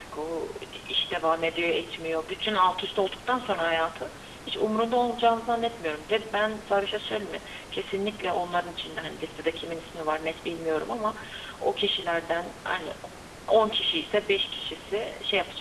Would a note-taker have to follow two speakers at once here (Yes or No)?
No